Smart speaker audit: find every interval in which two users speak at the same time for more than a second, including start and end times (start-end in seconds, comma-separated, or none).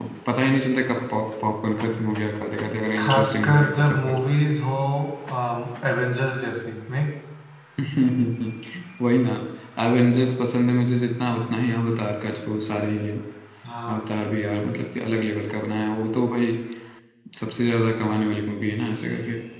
3.0-4.2